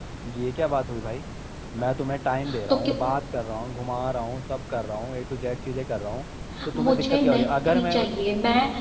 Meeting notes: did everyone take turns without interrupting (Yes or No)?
No